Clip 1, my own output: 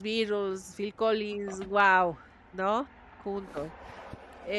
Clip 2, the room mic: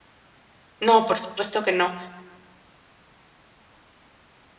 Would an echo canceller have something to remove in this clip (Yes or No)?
No